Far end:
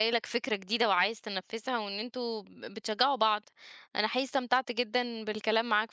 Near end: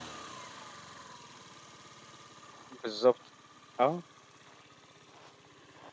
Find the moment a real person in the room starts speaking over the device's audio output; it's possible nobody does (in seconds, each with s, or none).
2.8 s